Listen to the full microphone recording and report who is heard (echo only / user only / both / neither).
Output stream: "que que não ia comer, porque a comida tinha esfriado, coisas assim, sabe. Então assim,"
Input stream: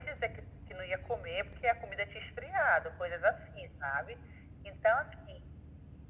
echo only